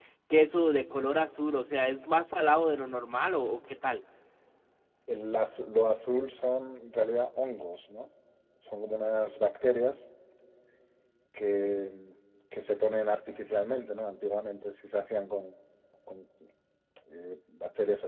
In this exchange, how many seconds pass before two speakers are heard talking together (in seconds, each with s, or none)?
none